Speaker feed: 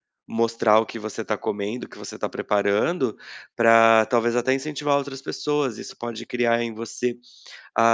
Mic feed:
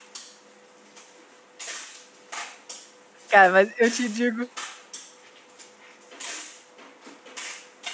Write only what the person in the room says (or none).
Cara, mas eu te digo